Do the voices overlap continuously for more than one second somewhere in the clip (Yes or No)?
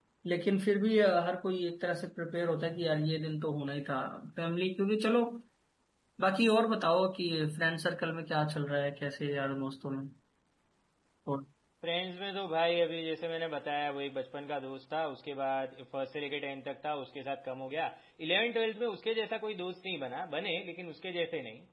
No